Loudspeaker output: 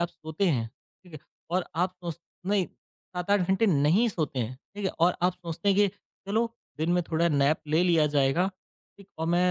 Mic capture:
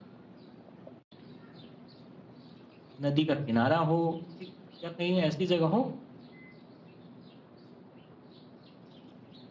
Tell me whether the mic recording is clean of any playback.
Yes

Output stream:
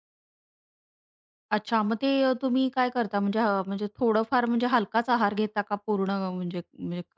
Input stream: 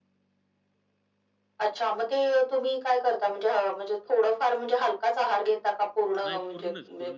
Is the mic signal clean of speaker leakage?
No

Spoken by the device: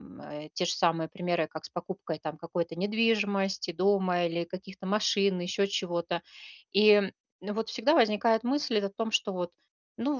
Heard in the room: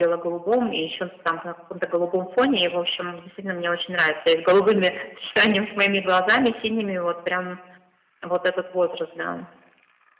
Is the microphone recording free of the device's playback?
Yes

